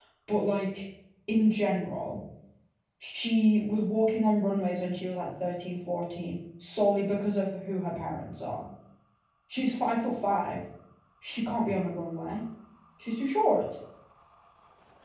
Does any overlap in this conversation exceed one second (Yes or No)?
No